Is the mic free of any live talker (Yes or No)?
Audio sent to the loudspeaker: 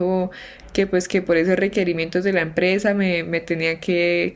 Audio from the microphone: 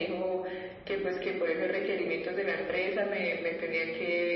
Yes